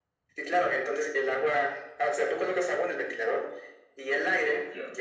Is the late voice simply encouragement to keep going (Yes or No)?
Yes